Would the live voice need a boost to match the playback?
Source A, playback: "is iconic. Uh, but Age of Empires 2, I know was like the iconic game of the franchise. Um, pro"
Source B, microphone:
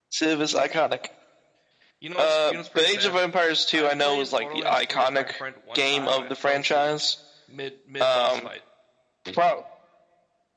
Yes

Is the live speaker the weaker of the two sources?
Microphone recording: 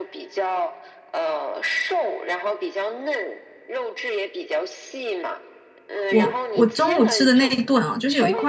No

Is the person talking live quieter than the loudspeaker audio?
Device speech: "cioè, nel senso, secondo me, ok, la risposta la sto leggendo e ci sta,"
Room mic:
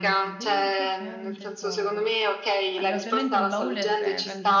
Yes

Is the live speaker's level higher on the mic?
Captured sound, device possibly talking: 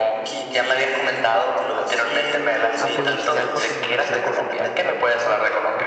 No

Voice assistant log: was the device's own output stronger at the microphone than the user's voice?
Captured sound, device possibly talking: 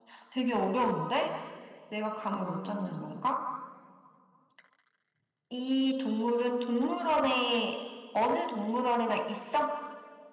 Yes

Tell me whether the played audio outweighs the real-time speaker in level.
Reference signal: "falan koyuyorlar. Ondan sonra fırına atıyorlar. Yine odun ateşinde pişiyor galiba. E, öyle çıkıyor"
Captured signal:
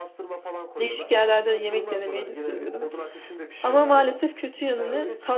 No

